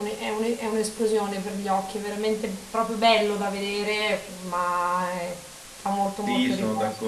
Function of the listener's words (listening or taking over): taking over